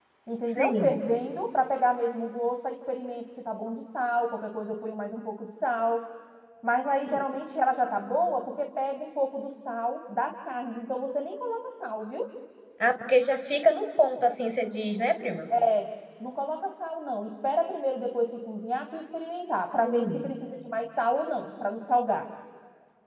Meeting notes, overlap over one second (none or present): none